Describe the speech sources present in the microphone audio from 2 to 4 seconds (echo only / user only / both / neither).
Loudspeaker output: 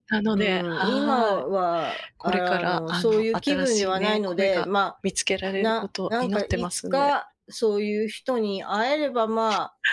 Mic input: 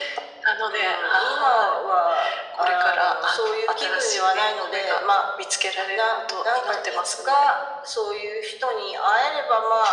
echo only